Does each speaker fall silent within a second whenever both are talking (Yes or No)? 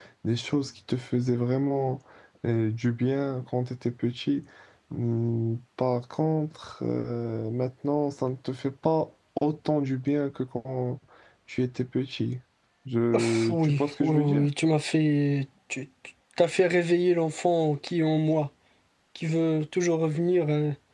No